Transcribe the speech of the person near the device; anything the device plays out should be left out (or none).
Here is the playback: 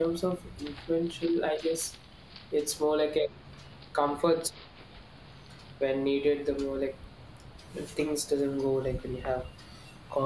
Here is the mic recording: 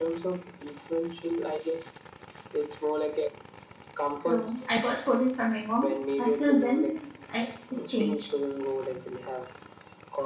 So I got scolding from my mom. Until then, I it changed.